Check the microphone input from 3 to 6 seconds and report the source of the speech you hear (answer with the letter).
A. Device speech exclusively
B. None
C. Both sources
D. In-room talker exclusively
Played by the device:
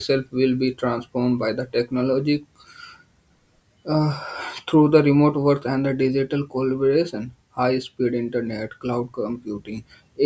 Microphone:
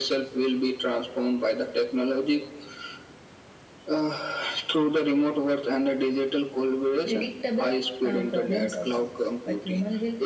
A